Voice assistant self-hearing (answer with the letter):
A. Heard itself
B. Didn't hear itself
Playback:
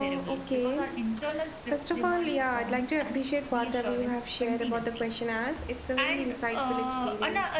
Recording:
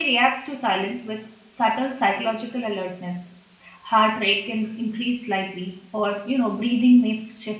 B